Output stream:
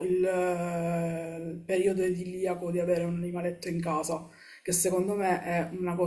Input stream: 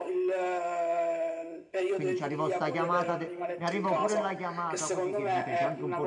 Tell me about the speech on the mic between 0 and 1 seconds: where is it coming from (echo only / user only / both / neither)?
echo only